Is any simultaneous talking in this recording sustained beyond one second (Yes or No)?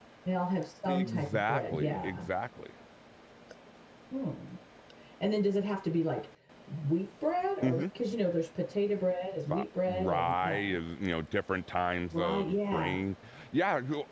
Yes